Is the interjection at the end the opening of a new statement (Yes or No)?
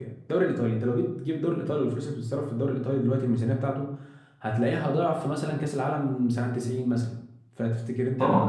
Yes